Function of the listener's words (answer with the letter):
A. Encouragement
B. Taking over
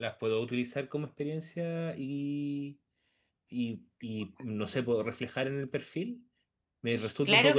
B